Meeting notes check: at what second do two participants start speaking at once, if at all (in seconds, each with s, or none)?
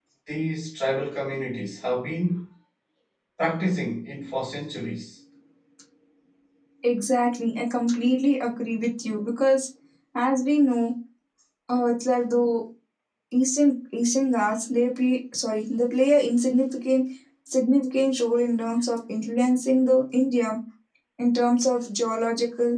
none